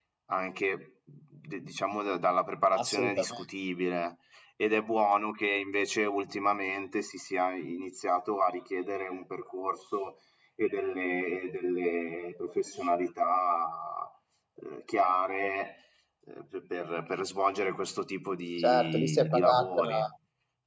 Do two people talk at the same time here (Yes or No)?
Yes